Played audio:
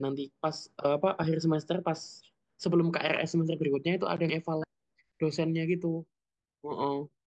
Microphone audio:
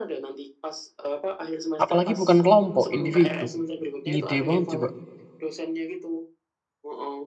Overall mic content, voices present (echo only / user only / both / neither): both